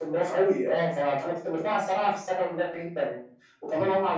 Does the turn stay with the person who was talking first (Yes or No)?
Yes